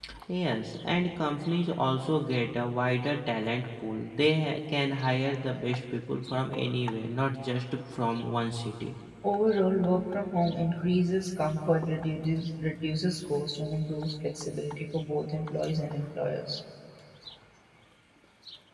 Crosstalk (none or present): none